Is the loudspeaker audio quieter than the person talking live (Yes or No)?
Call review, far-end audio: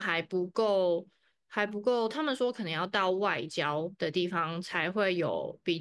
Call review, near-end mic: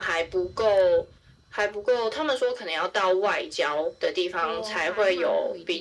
No